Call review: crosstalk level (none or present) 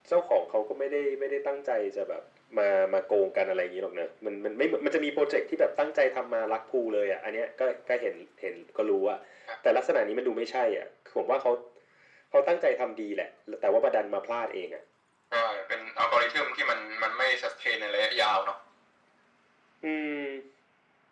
none